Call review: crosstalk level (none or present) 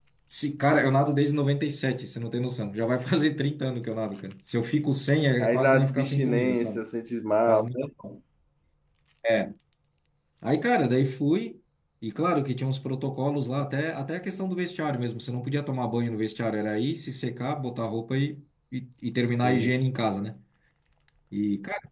present